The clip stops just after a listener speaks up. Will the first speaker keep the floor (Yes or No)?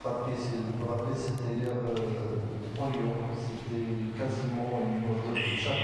No